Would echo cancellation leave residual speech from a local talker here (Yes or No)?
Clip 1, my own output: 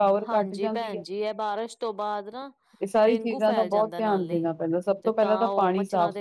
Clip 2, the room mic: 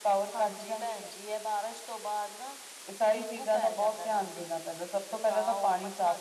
No